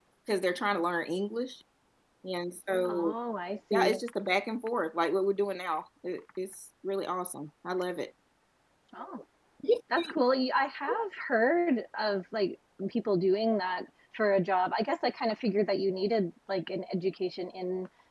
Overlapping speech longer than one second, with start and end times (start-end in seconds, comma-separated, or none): none